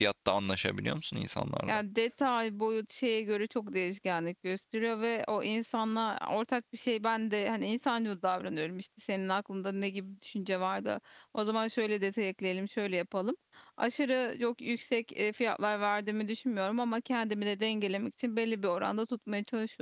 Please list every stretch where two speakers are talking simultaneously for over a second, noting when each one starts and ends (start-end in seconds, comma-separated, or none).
none